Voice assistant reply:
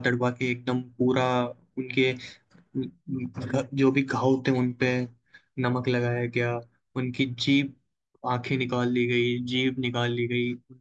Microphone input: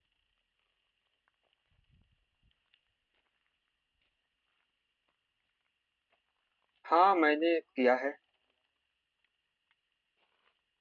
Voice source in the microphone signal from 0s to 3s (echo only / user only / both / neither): neither